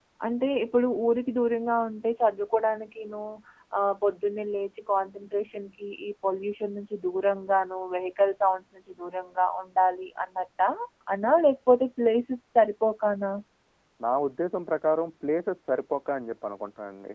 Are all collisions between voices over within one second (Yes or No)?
Yes